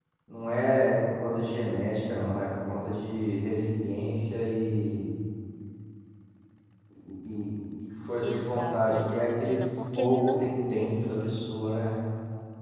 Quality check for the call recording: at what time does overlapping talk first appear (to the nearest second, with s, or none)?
8 s